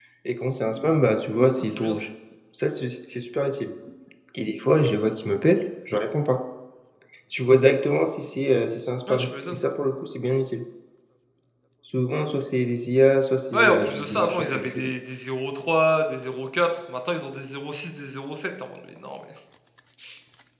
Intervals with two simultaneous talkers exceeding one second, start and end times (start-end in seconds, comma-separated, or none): 13.5-14.9